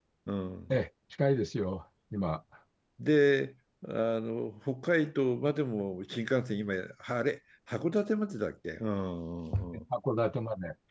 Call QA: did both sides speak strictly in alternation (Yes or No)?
Yes